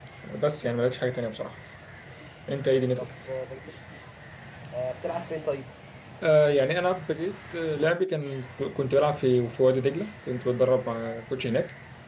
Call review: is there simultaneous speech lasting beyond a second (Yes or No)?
No